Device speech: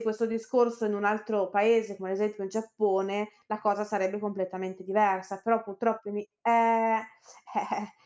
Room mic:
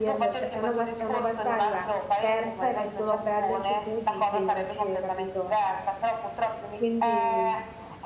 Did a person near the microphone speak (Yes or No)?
Yes